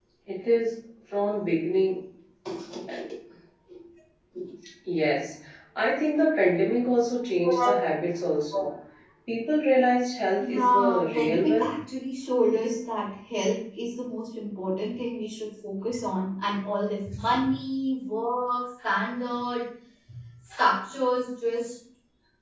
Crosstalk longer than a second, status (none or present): present